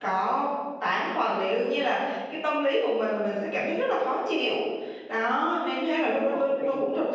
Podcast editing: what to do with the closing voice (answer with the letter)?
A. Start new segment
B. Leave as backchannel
B